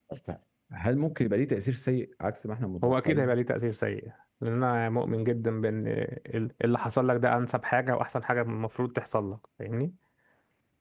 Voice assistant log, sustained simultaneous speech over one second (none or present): none